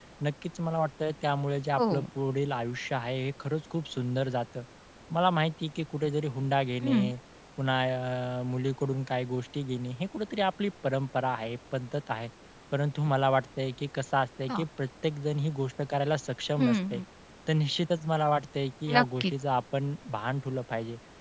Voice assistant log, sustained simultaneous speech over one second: none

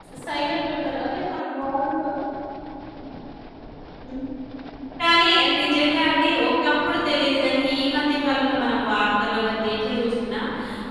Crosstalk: none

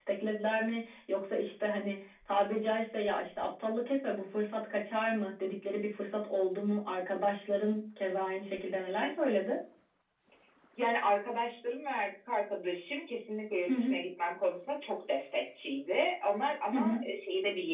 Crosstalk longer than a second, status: none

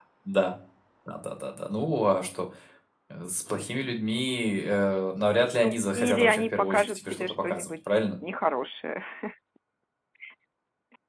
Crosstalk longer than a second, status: present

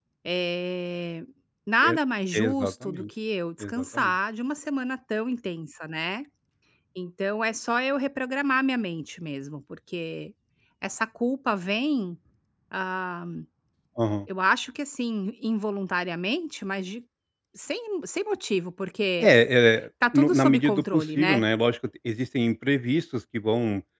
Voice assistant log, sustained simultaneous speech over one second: present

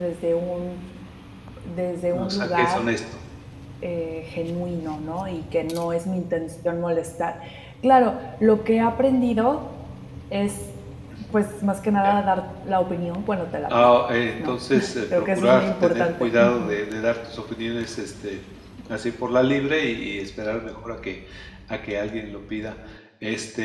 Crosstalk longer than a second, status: present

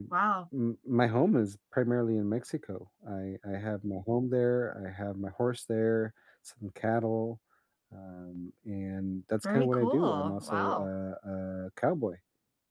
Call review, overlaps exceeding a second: present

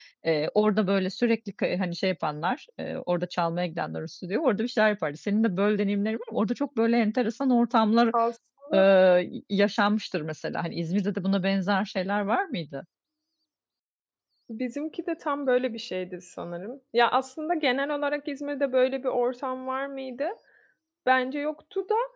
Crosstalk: none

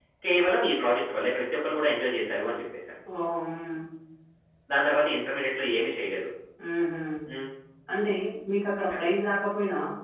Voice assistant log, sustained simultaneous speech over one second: none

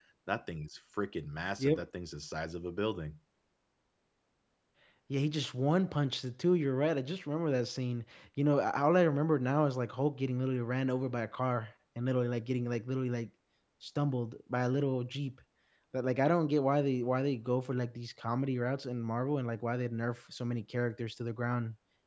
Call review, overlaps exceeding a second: none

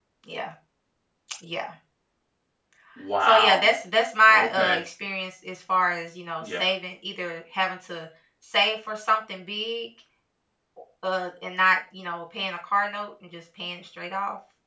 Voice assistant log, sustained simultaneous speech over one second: none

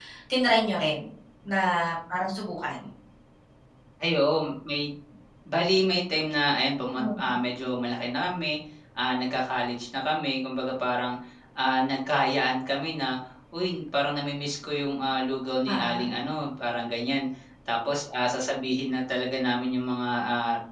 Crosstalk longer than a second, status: none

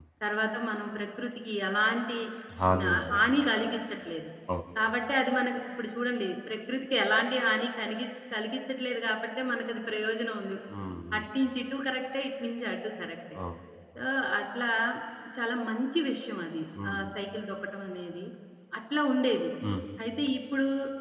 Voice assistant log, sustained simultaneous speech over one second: none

